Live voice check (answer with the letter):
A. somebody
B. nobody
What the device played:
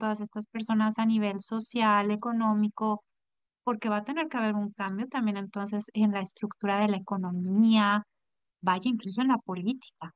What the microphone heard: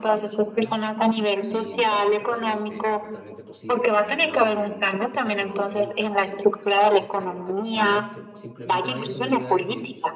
A